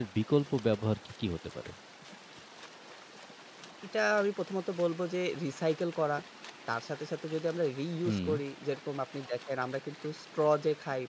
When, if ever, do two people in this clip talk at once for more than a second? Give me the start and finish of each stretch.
none

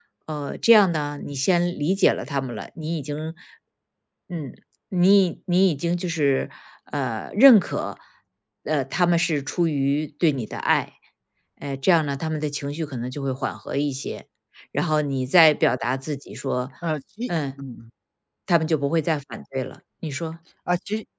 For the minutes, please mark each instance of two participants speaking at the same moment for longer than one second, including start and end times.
none

